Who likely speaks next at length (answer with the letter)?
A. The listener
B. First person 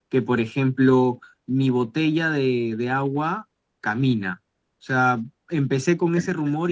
B